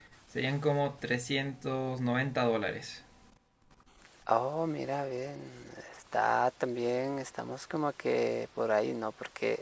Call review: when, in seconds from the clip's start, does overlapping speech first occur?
none

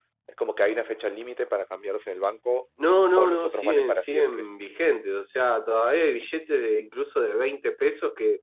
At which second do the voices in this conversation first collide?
3 s

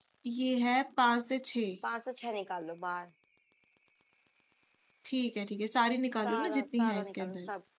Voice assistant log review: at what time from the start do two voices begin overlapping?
6 s

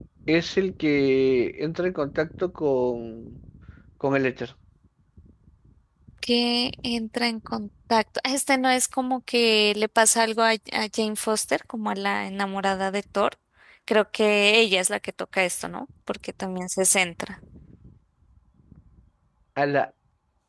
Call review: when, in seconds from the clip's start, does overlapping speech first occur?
none

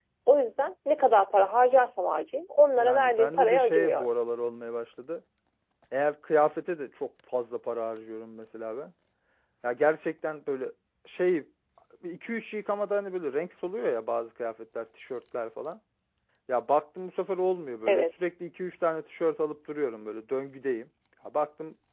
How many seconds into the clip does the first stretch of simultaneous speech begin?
3 s

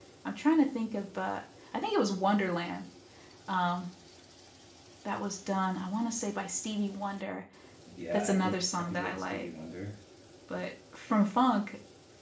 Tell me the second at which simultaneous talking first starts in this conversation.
8 s

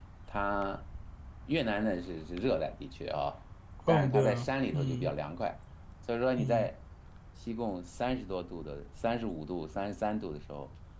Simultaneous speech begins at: 4 s

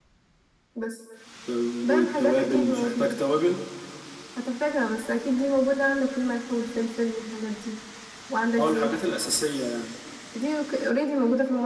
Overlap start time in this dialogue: 2 s

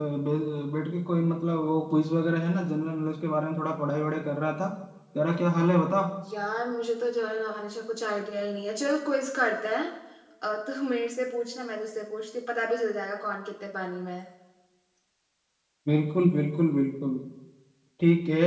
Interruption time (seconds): none

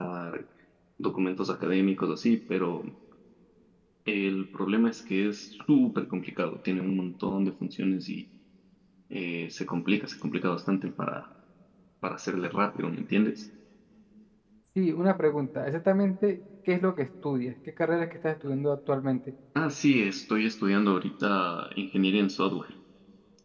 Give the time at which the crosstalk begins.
none

